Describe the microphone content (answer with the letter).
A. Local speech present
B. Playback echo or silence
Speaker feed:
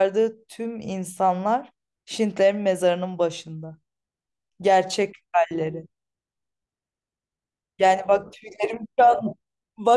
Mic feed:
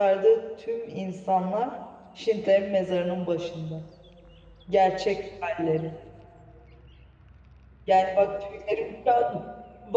B